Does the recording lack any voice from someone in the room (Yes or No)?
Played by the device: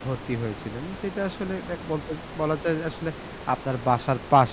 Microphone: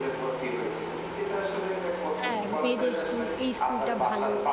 No